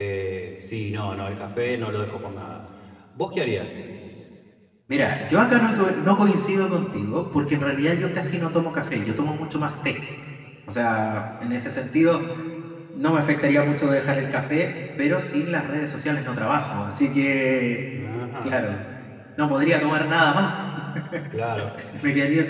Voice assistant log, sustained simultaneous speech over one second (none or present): none